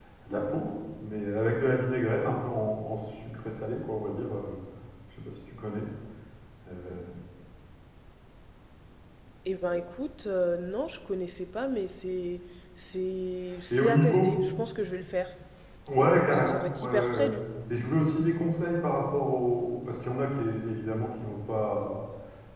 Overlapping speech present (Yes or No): Yes